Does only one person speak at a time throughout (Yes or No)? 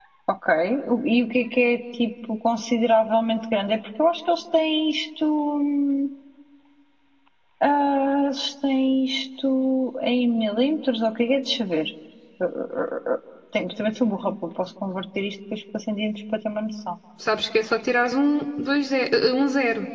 Yes